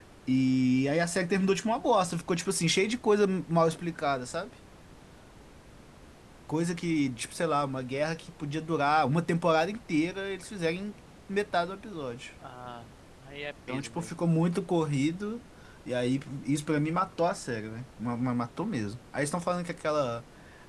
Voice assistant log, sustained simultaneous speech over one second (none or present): none